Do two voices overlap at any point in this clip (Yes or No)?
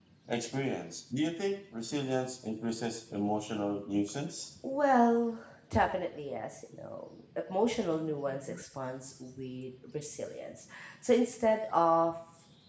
No